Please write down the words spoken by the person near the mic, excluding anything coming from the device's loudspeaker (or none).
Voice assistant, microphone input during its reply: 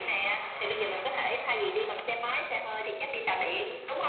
none